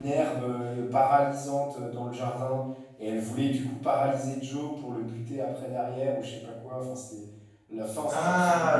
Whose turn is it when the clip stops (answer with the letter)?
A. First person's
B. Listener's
B